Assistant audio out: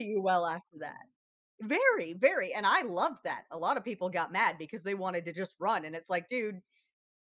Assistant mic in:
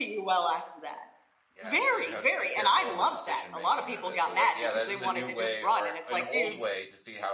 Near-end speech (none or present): present